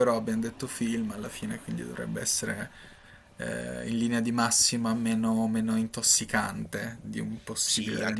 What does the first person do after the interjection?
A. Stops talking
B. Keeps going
A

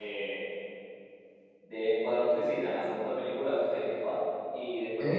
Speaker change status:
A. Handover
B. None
B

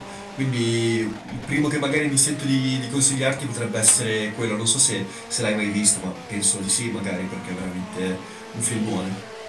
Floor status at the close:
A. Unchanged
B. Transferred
B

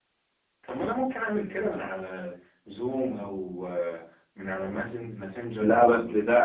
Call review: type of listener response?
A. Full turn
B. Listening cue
A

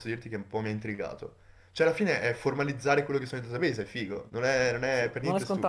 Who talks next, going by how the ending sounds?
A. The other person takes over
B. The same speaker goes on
A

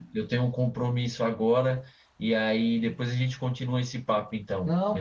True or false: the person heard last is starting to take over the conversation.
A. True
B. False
A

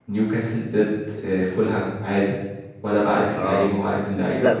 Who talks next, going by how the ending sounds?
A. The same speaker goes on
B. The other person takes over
B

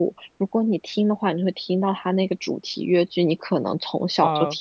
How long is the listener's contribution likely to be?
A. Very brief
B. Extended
A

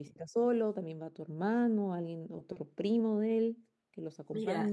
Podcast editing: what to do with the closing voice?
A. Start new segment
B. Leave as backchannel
A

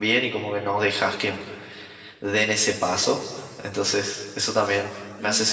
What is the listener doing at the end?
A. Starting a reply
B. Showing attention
A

